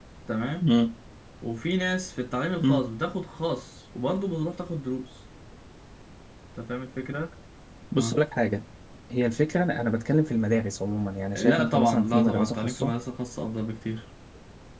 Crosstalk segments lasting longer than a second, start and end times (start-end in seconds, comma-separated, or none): 11.3-12.9